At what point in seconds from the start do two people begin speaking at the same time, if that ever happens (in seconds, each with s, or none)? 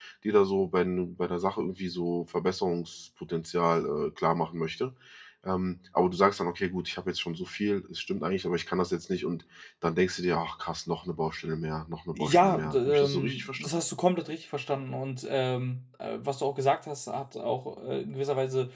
12.2 s